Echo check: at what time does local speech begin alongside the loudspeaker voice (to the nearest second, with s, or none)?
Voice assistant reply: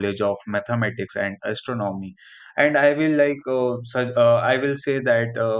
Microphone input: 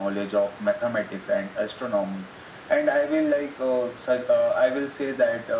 none